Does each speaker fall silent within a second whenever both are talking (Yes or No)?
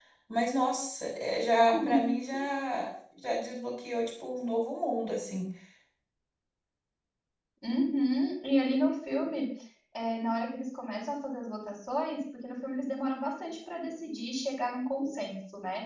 Yes